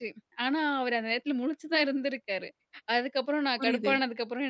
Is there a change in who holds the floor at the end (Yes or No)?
No